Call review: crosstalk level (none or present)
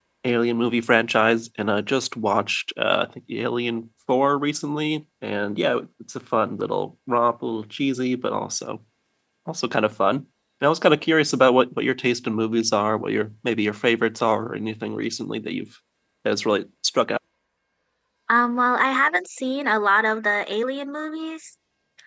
none